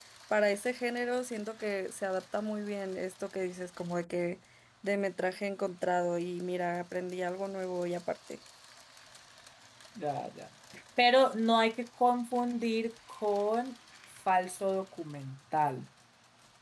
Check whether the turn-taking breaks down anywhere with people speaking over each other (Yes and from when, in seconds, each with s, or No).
No